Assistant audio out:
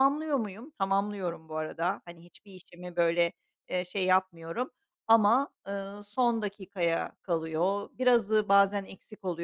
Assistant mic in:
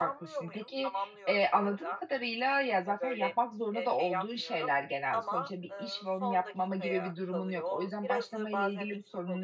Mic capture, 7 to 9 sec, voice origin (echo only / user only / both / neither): both